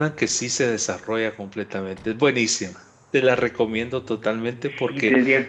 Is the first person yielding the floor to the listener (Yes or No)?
Yes